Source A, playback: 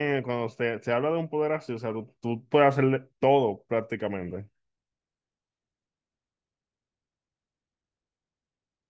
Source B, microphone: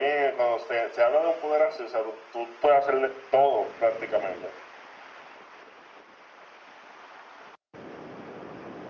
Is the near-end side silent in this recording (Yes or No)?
Yes